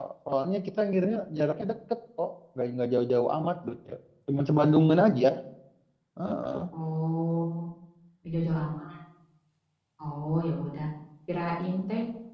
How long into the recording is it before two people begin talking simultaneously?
none

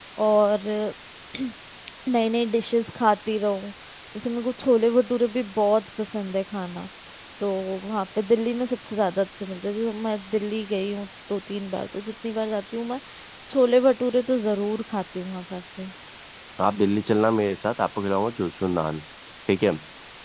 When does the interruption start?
none

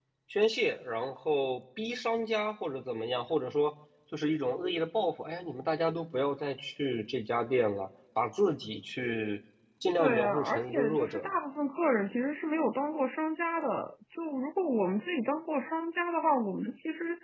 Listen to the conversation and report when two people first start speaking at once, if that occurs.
10.0 s

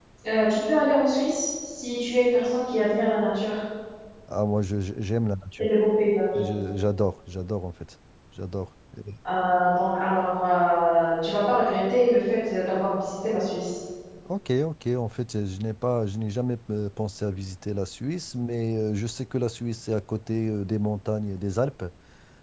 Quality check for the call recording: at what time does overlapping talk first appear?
none

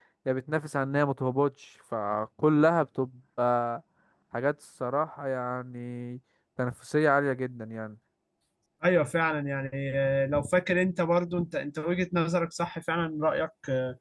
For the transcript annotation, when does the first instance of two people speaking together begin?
none

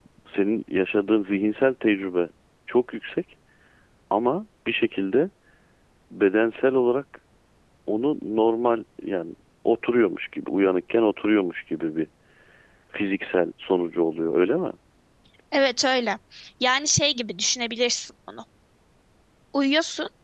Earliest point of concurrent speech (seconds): none

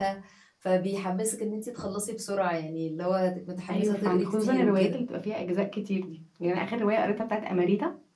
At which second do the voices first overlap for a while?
3.7 s

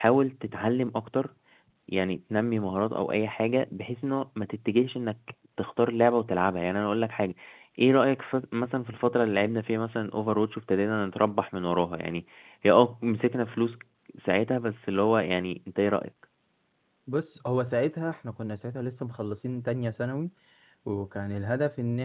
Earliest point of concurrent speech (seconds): none

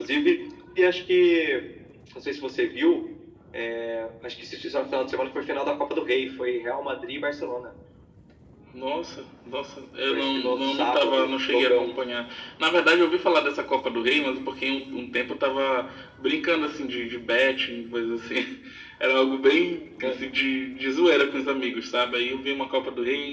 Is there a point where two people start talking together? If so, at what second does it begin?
10.1 s

